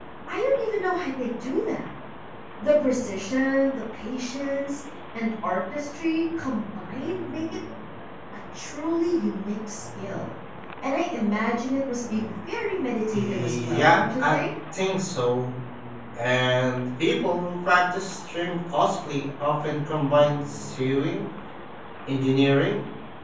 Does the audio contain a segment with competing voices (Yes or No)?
Yes